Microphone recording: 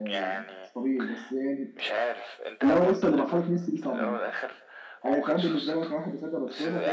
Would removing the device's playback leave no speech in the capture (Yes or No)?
No